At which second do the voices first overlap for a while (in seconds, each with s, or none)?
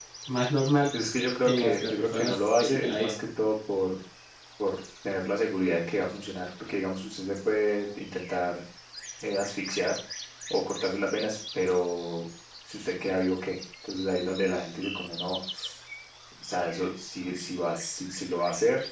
1.4 s